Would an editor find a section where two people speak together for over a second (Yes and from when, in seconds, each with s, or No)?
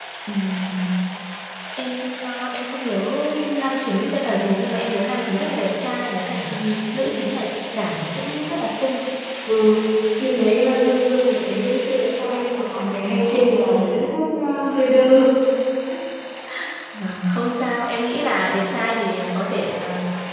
No